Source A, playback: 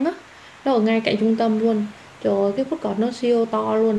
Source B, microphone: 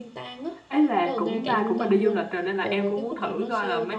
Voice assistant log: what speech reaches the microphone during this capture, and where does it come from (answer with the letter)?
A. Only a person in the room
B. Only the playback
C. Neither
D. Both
D